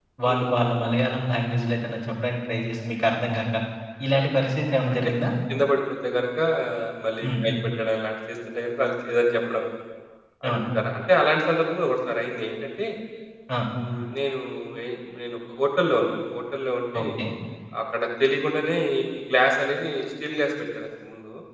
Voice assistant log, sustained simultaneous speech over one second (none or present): none